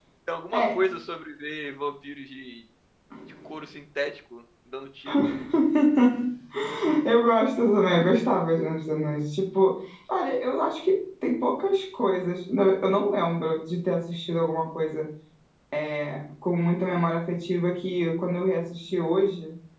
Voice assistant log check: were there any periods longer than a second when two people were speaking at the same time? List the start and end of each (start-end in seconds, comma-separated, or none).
none